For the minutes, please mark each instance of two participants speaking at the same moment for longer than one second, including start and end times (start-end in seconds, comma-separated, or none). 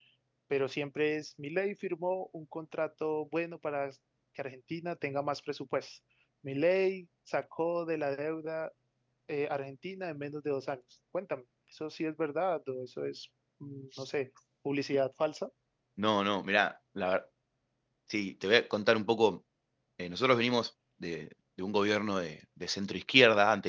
none